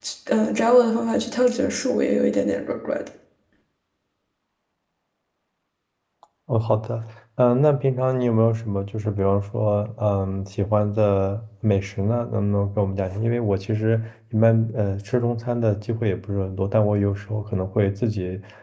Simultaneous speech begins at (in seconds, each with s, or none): none